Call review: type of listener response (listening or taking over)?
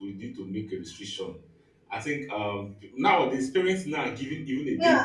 taking over